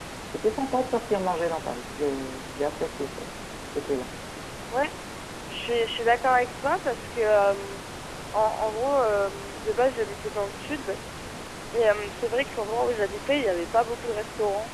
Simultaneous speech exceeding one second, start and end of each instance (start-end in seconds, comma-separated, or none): none